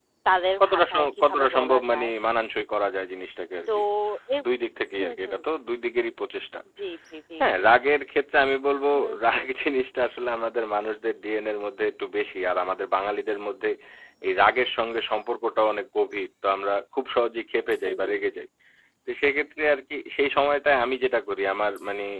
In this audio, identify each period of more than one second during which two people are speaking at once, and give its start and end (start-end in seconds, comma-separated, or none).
0.6-2.1